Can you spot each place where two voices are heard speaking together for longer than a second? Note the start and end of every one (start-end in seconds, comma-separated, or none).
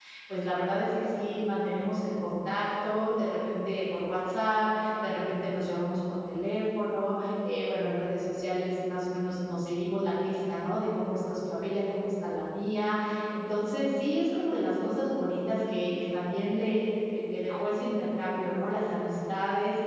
none